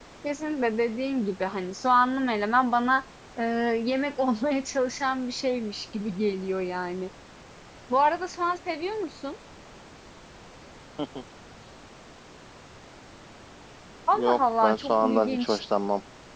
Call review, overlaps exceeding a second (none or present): present